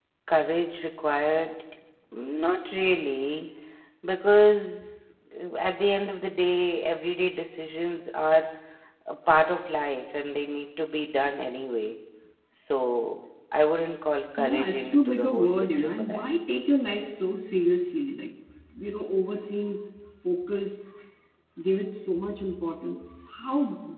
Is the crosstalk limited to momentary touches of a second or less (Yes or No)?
No